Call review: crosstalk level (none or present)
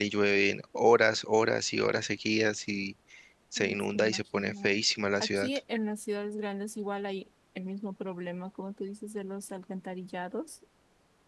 present